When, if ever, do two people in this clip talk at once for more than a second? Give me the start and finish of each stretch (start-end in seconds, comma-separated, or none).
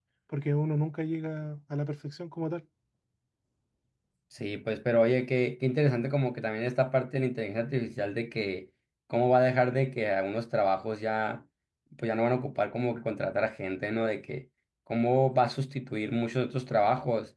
none